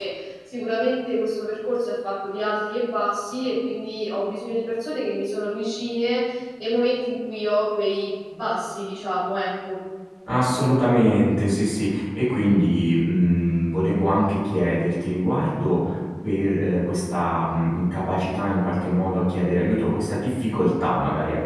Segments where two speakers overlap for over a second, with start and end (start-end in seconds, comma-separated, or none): none